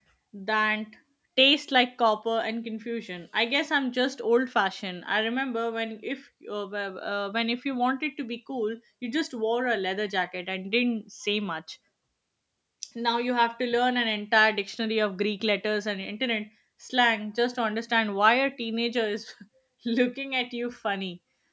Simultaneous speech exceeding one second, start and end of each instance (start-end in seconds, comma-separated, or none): none